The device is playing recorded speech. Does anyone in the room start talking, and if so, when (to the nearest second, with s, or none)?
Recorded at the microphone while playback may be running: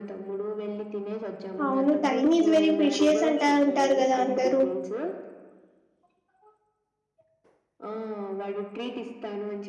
2 s